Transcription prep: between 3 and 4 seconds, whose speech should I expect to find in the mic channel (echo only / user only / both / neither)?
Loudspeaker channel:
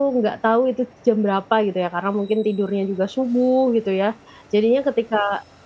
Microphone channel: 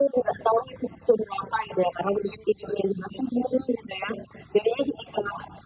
echo only